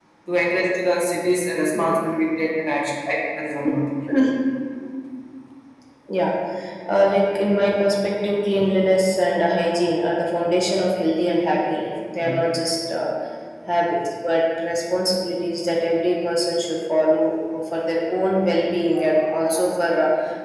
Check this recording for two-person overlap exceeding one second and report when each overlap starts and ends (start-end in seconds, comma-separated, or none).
none